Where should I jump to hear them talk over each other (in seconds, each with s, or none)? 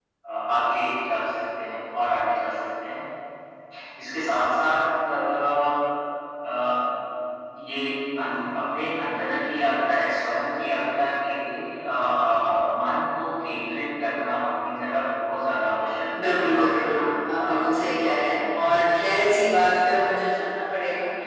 16.1 s